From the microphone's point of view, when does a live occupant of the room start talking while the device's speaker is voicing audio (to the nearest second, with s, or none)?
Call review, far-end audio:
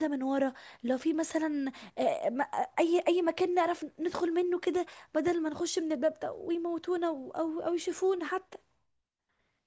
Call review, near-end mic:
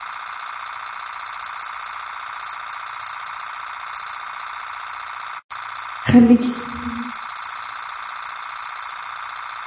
6 s